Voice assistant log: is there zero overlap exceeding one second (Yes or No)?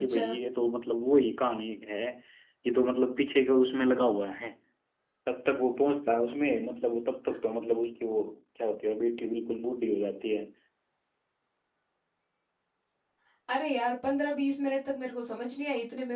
Yes